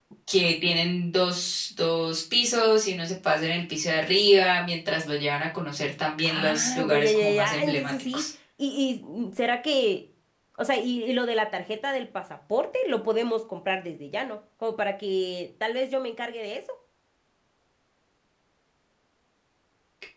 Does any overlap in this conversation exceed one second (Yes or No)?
Yes